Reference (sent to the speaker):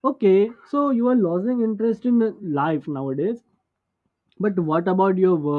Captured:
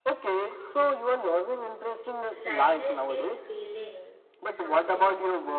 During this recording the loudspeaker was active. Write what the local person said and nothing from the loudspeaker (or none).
sadness is feeling something